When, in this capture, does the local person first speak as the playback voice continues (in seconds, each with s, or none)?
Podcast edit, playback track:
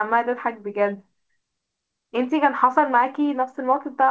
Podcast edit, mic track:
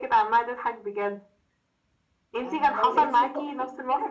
2.4 s